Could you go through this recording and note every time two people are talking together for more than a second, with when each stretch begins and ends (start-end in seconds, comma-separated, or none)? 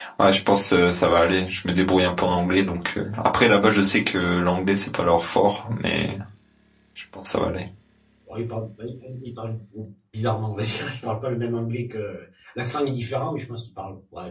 none